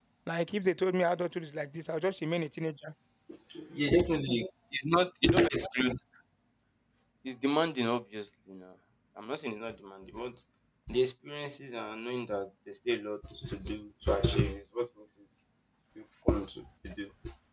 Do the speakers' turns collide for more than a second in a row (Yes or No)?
No